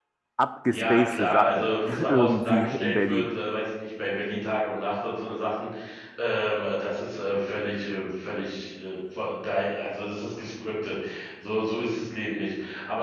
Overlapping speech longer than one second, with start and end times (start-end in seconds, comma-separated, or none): 0.7-3.3